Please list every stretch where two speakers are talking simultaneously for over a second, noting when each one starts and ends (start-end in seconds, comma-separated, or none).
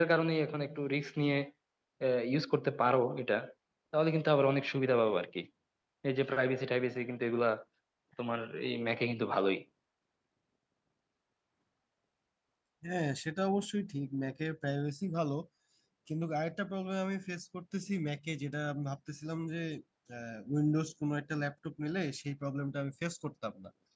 none